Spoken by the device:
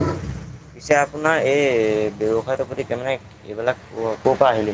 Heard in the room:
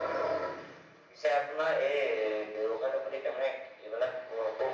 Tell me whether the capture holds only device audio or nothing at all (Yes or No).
Yes